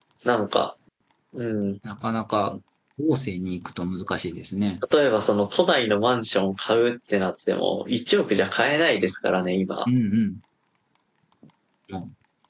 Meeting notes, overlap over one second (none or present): none